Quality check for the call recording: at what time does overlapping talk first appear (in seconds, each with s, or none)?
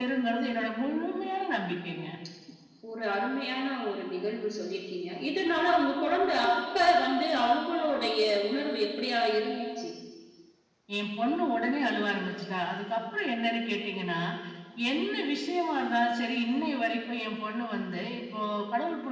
none